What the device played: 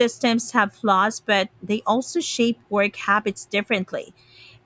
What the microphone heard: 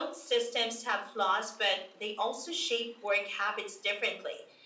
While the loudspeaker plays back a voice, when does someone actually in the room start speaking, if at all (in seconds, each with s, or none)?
none